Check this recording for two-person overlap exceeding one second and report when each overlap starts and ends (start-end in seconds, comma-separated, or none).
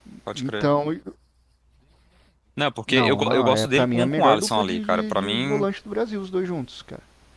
2.9-5.7